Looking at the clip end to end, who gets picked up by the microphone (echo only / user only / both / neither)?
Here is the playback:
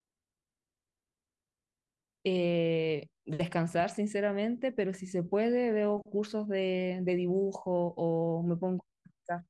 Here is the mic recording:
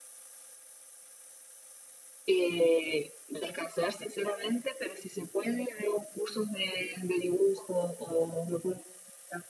echo only